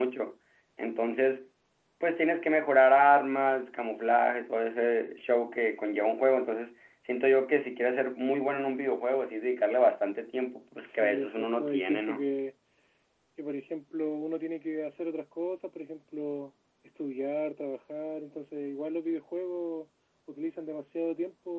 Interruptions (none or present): present